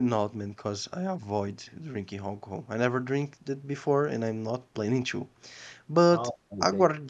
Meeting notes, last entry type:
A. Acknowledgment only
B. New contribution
A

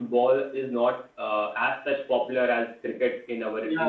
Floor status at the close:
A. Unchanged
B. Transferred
B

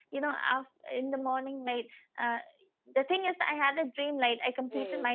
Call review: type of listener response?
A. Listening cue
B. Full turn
A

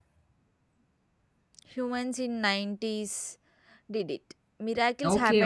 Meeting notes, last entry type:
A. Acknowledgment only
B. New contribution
B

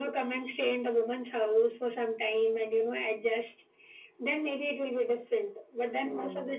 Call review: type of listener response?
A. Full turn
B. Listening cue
B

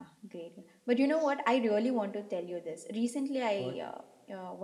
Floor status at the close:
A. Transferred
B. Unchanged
B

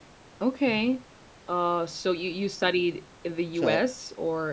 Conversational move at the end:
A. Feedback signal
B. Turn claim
A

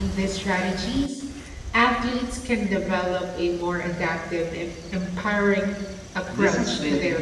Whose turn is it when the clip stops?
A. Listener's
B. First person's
A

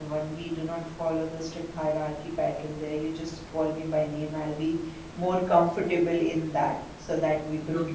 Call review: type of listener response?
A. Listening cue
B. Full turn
A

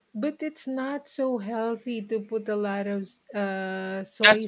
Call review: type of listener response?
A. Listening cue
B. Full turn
B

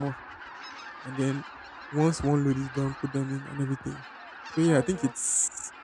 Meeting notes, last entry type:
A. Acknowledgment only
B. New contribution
A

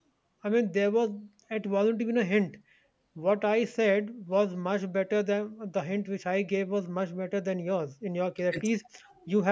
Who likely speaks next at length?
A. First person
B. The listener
A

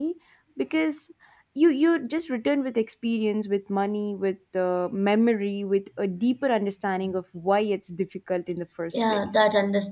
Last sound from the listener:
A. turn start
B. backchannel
A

